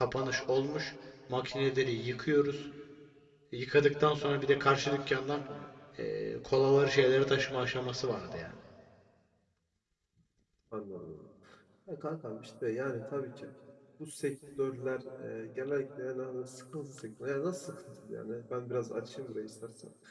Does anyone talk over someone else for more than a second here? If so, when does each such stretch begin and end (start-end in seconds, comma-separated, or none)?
none